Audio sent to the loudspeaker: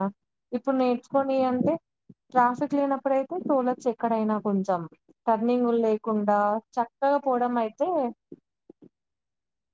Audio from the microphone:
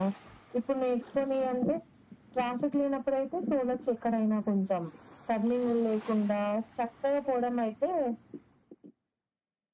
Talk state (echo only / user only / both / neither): echo only